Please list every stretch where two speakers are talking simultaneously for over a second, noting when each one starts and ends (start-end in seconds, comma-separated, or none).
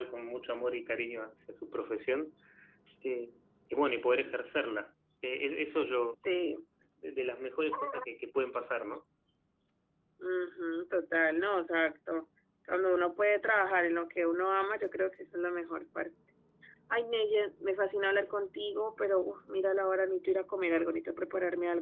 none